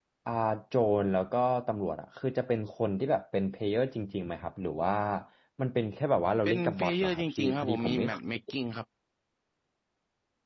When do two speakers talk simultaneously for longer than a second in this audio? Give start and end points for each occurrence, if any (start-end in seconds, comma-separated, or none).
6.5-8.2